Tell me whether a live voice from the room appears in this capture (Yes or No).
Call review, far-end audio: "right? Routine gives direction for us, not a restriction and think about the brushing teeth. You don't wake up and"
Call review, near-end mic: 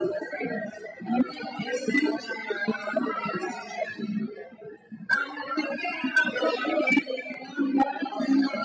No